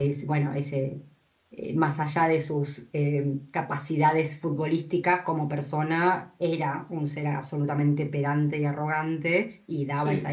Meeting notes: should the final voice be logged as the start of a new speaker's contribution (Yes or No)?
No